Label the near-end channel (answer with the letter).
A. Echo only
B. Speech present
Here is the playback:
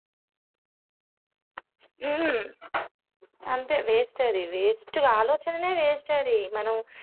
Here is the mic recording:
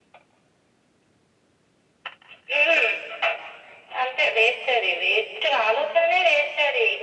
A